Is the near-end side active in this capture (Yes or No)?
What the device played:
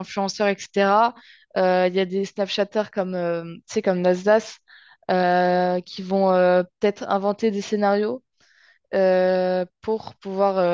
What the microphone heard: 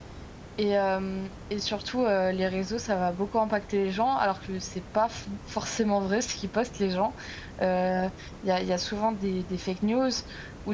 Yes